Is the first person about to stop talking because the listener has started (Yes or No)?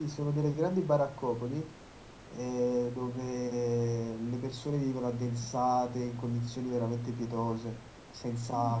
No